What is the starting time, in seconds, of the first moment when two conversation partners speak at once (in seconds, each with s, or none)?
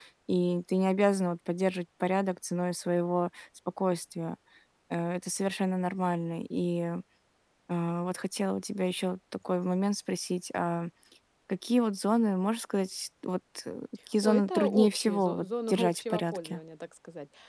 14.2 s